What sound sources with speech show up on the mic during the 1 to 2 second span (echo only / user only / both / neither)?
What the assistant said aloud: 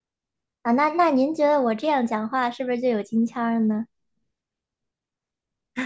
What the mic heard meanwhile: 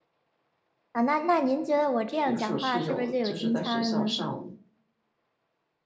echo only